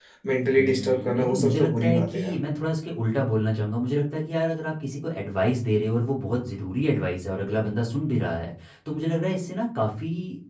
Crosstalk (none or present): present